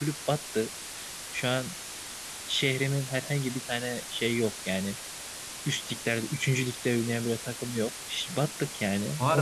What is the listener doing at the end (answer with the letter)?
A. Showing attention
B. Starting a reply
B